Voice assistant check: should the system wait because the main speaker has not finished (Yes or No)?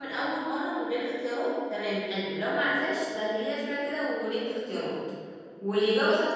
Yes